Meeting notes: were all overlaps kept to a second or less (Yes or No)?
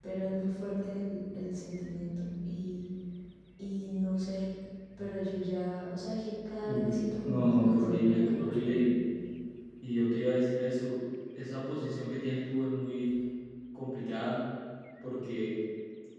No